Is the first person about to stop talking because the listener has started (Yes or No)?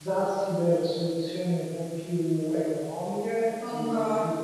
No